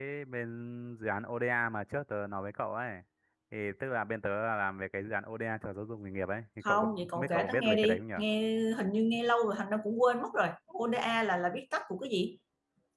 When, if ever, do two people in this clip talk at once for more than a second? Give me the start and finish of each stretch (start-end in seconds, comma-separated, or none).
6.6-8.2